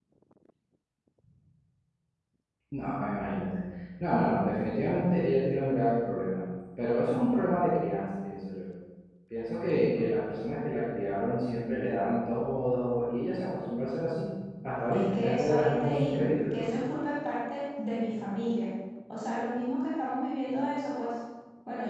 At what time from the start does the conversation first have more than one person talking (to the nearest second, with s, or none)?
15 s